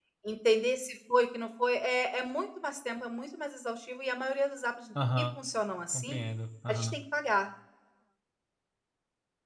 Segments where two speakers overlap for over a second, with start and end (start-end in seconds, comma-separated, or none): none